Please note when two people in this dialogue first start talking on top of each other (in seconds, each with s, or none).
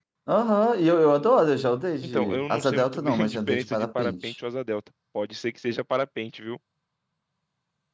2.0 s